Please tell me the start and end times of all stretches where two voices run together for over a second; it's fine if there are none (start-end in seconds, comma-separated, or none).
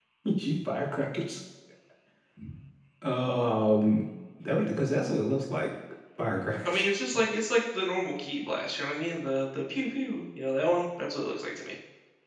none